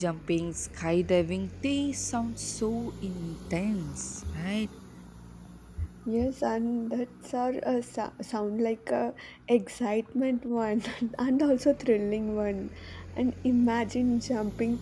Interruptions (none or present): none